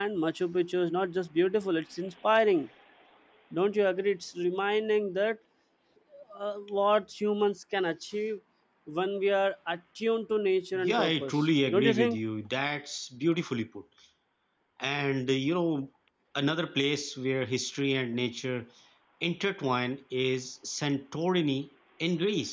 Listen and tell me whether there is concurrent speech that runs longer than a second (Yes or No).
Yes